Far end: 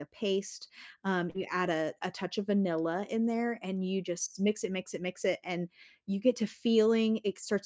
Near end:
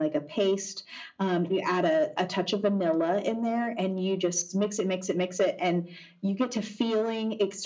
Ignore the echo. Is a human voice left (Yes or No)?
No